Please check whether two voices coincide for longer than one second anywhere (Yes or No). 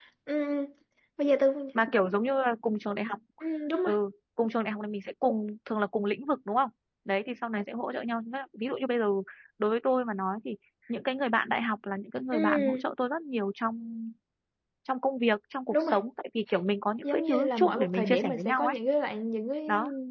Yes